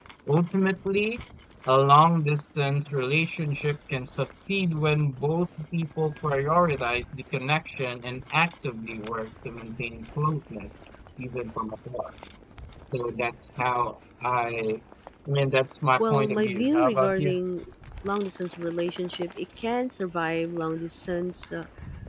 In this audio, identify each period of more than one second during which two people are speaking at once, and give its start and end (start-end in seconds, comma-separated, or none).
16.0-17.4